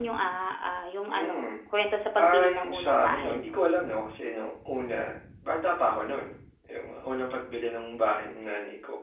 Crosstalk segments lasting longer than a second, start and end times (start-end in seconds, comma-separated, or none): 2.3-3.5